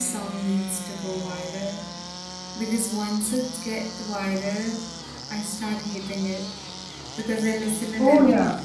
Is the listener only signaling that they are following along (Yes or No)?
Yes